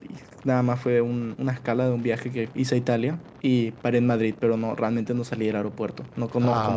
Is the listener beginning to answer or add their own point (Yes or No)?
Yes